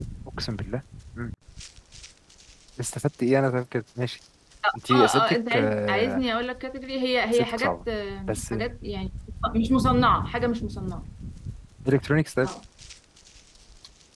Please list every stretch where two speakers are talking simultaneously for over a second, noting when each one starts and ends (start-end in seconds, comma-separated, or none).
4.9-6.2